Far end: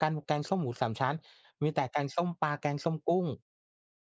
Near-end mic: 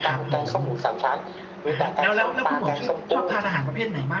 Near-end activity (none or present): present